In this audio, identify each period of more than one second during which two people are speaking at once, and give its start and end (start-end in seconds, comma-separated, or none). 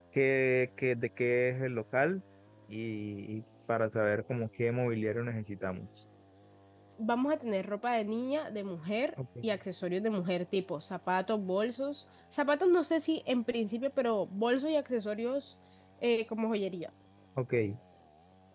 none